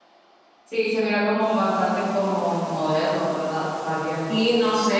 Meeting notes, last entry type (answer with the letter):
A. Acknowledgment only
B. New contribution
B